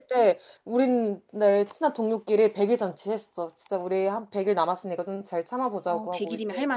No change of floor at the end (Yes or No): No